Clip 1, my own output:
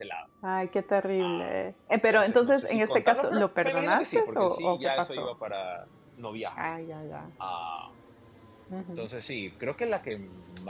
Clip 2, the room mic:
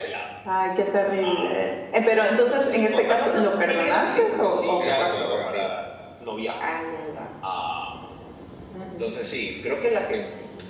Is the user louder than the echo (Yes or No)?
No